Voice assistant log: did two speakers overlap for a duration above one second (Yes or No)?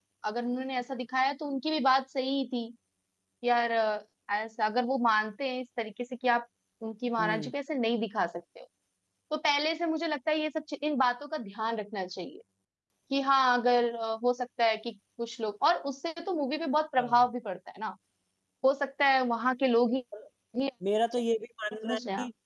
No